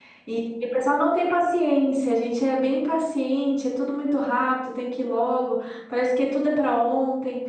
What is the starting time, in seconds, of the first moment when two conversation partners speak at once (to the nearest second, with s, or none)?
none